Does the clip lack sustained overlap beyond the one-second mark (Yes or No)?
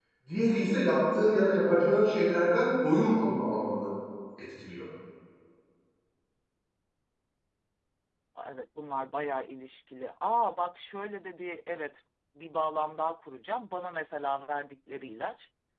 Yes